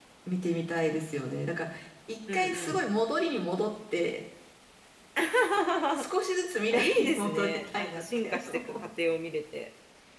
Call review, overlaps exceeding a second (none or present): present